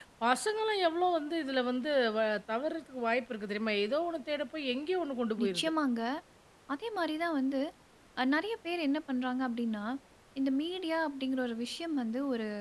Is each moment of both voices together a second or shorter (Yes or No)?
Yes